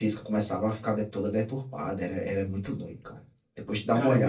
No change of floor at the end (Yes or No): No